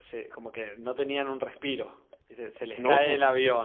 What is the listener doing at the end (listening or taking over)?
listening